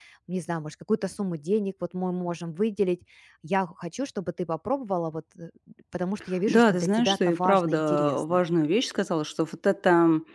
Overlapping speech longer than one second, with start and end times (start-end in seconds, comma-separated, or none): 6.5-8.4